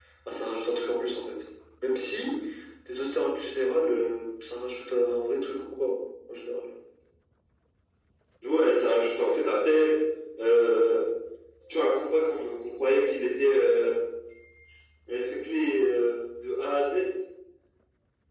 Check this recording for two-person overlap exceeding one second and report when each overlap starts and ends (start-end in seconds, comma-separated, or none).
none